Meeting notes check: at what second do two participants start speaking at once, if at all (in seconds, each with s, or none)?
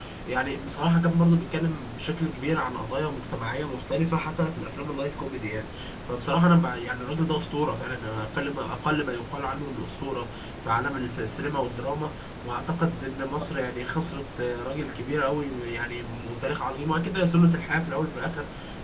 none